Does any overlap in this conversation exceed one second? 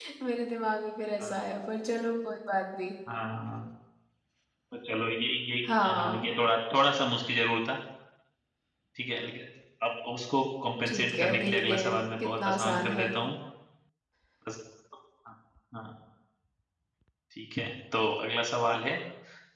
Yes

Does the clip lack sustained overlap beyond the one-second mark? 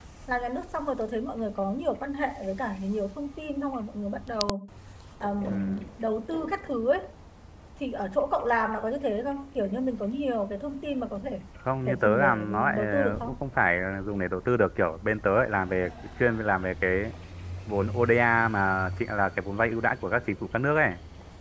No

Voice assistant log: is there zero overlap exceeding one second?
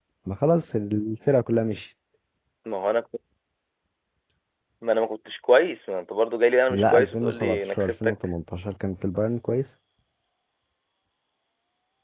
No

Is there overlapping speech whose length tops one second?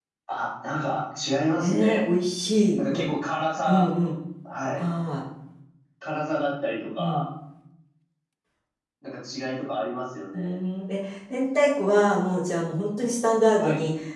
No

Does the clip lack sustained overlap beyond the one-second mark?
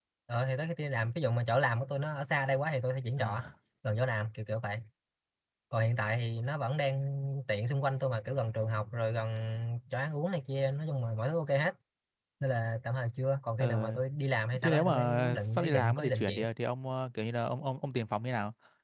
No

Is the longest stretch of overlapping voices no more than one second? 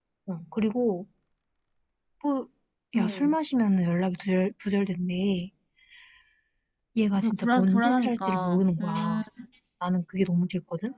No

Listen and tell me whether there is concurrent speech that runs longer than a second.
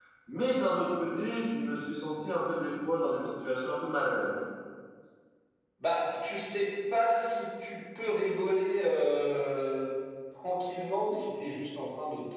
No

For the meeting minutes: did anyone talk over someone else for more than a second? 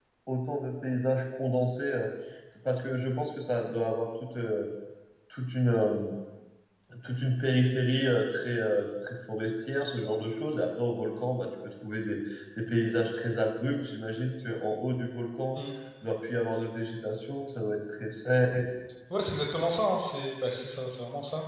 No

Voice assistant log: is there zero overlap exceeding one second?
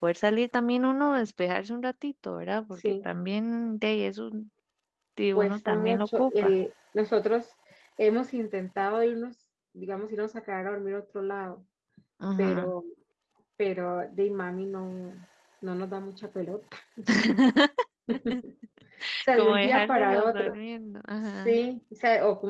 No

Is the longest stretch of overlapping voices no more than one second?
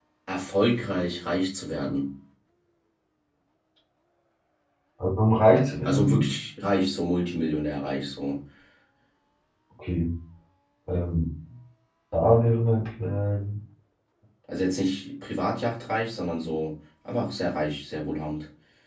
Yes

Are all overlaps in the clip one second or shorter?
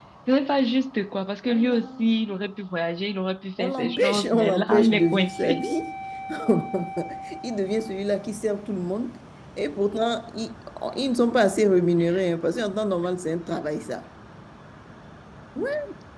No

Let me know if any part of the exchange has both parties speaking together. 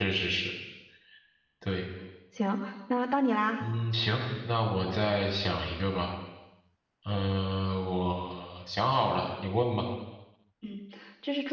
No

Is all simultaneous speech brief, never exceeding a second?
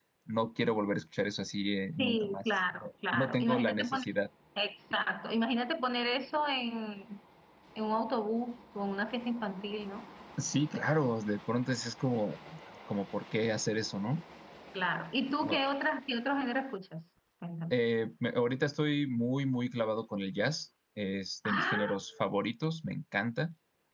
No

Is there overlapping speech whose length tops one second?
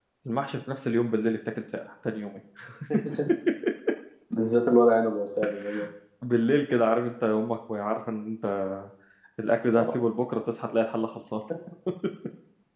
No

